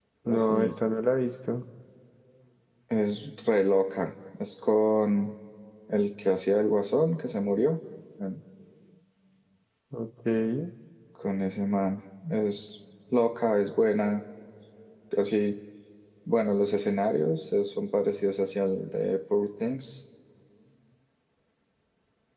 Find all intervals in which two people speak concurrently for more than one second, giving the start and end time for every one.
none

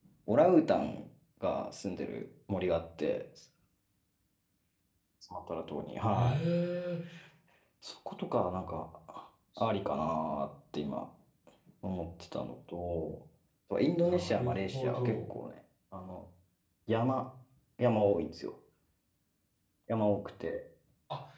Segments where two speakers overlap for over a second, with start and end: 14.0-15.3

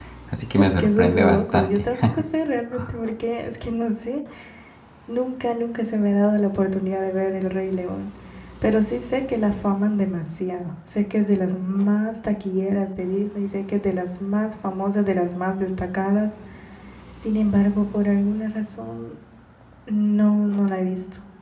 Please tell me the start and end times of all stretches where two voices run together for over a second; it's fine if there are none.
0.6-1.8

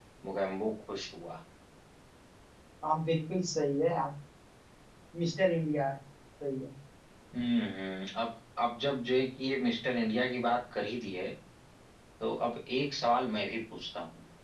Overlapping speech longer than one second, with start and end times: none

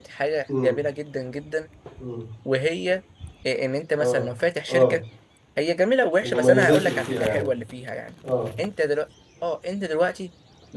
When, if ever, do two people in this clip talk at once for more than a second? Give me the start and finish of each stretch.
6.2-7.5

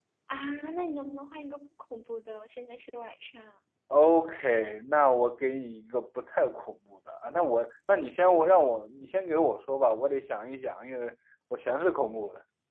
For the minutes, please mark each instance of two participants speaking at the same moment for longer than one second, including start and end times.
none

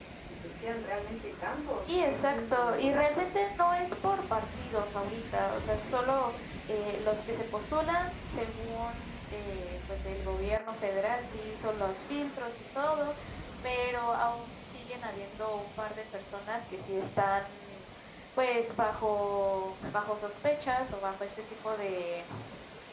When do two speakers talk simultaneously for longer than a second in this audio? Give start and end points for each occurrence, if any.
1.9-3.3

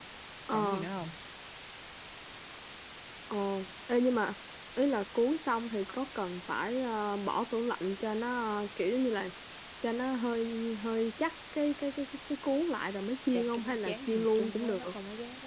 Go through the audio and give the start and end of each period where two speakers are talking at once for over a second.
13.3-14.8

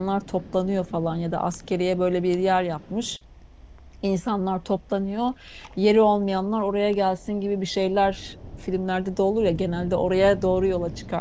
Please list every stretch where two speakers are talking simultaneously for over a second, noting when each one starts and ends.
none

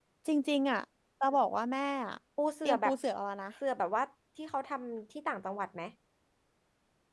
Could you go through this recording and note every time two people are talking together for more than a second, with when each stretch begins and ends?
none

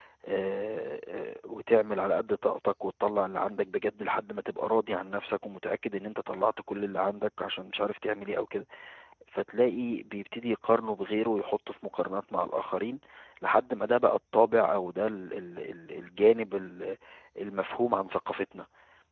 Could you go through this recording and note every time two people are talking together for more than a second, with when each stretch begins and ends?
none

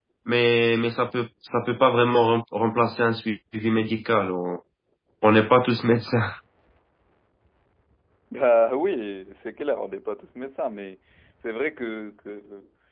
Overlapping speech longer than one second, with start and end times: none

